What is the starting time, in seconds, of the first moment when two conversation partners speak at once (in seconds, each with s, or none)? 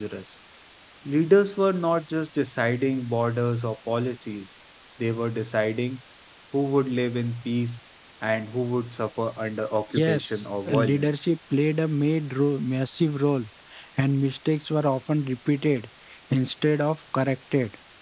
9.9 s